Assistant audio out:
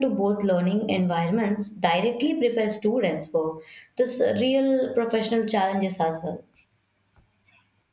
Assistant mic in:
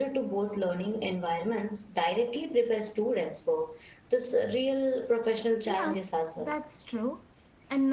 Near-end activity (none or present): present